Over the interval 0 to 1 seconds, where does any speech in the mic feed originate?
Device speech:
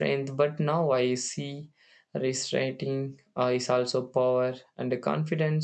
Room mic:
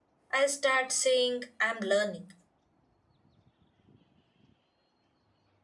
user only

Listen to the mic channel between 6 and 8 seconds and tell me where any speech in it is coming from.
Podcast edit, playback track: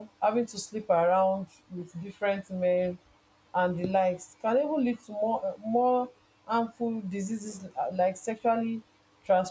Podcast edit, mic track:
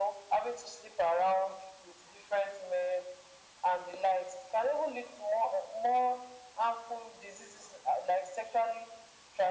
echo only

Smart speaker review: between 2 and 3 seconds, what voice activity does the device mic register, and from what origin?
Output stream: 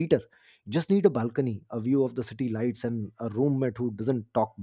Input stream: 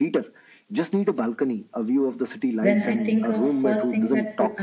both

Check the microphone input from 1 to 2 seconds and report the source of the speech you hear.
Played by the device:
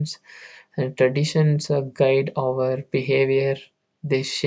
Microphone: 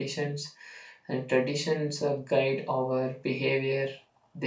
echo only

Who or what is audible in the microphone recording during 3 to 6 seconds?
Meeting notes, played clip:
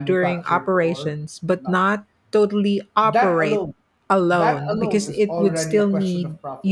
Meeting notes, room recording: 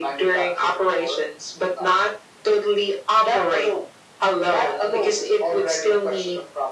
echo only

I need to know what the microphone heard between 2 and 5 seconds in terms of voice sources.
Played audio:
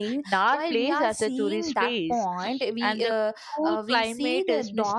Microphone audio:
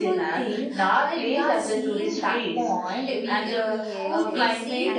both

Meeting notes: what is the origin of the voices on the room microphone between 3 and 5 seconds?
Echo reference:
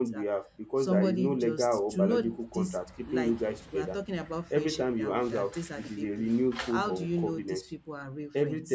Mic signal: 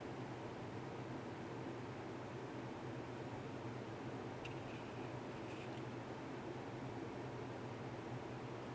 neither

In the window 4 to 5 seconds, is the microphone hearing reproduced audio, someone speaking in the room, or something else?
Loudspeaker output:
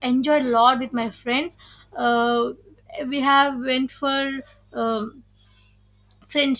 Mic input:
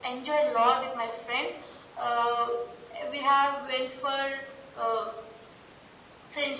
echo only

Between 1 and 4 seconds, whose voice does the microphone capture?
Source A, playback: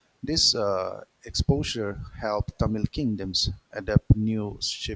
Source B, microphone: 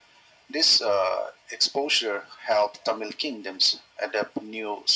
echo only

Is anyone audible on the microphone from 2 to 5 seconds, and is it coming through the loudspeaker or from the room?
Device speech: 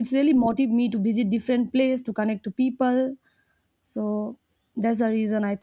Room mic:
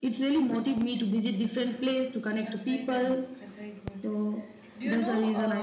both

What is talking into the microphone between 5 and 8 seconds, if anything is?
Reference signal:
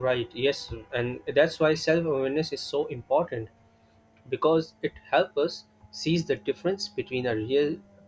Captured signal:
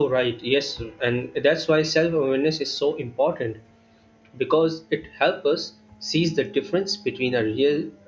echo only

